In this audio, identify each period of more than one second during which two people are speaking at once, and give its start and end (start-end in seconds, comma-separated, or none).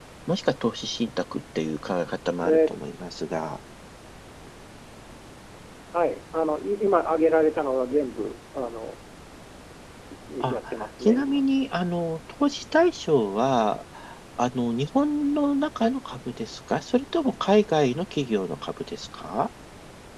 none